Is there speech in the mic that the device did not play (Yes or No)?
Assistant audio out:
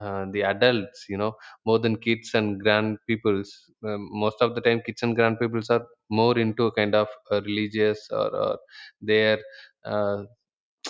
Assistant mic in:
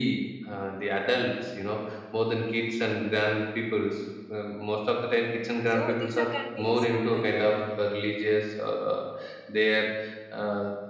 Yes